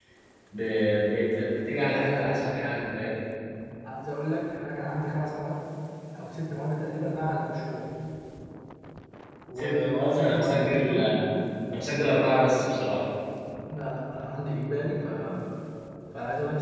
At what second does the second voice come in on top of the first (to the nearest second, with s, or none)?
10 s